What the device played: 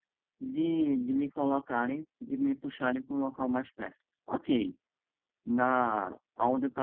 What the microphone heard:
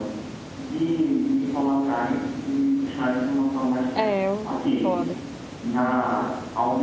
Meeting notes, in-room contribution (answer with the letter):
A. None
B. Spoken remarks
B